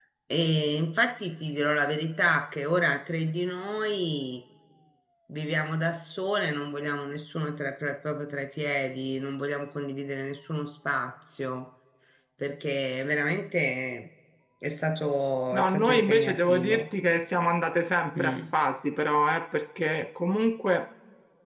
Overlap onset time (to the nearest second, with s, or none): 16 s